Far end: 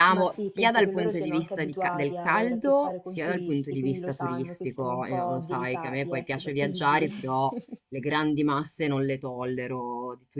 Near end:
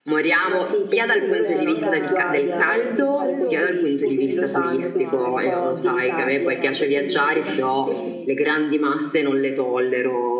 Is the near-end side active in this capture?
Yes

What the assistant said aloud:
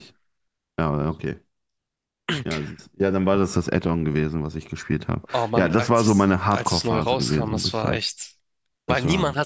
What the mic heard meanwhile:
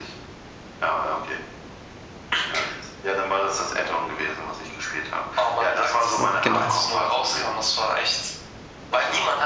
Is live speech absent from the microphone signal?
No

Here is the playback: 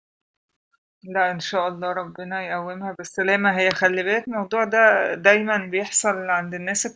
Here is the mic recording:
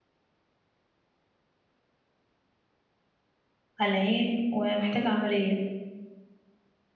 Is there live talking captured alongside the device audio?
Yes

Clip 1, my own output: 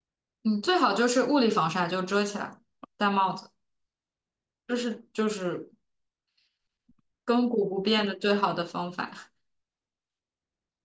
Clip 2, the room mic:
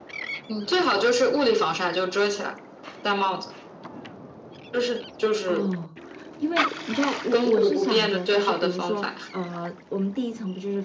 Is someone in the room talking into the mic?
Yes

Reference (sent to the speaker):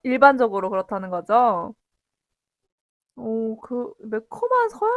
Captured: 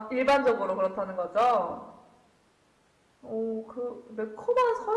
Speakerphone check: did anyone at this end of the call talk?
No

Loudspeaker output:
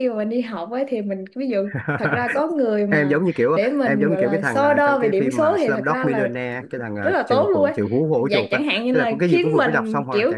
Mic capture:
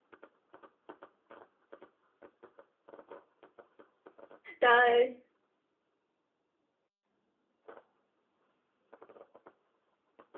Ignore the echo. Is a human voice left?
Yes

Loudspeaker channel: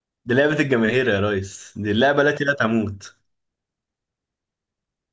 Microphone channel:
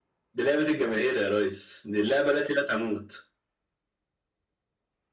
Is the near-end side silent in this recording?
Yes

